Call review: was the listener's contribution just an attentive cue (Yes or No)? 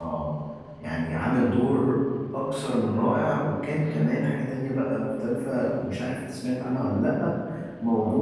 Yes